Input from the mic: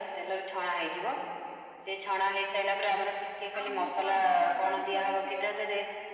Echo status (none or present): present